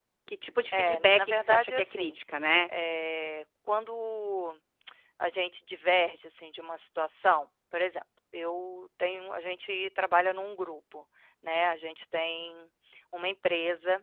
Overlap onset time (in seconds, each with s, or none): 0.7 s